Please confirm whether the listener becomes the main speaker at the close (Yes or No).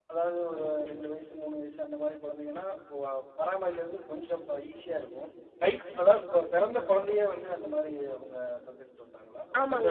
Yes